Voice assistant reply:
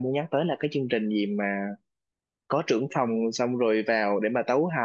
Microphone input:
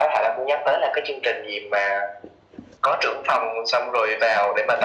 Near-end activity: none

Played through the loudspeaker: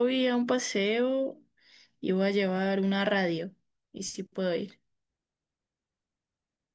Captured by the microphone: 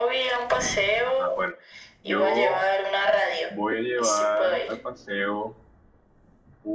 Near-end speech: present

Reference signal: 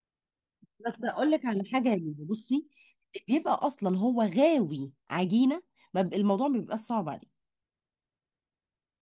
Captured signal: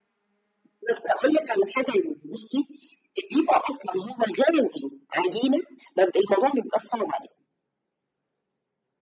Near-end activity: none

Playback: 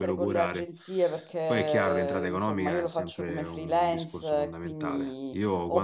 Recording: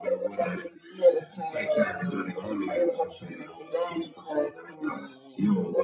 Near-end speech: none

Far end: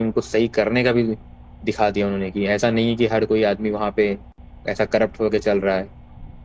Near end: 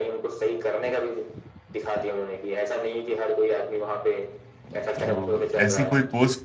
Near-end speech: present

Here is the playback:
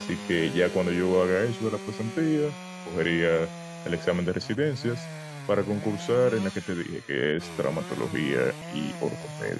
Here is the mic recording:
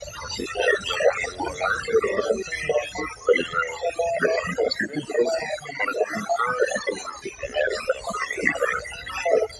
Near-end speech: none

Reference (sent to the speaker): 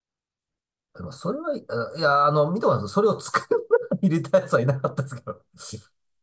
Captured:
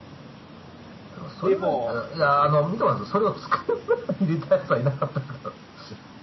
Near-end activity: present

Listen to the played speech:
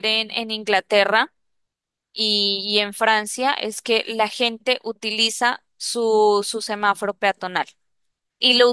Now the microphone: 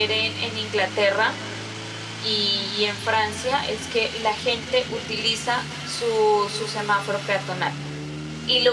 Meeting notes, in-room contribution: none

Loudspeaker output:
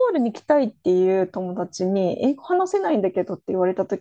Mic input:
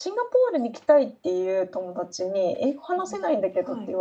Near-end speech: present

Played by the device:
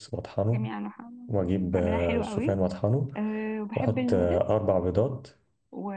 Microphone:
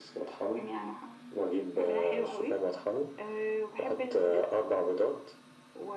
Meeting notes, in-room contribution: none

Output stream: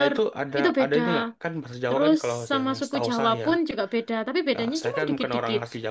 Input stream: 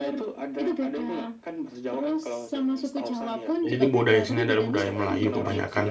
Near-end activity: present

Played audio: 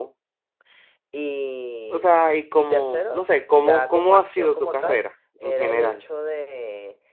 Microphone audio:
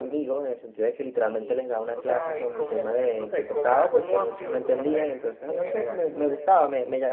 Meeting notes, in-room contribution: present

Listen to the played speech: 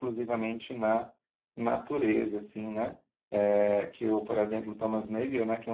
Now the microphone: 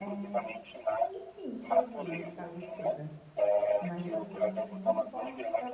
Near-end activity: present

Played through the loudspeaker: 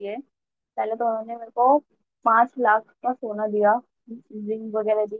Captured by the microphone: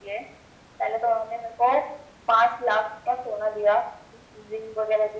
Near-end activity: none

